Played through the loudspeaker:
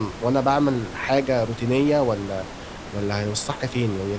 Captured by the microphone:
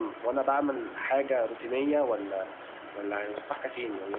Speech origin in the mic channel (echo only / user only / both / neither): echo only